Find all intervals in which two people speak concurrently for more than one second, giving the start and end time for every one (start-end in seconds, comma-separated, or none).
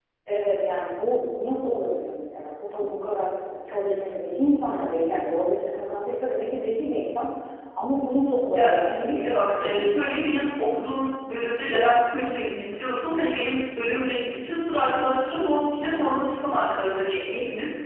8.5-10.3